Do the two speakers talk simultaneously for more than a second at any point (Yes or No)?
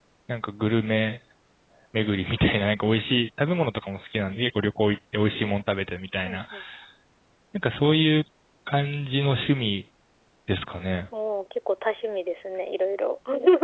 No